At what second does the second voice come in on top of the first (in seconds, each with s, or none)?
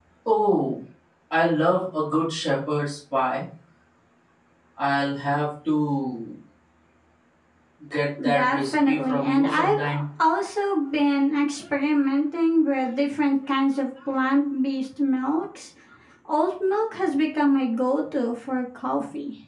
8.3 s